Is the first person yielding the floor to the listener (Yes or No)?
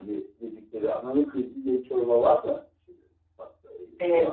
Yes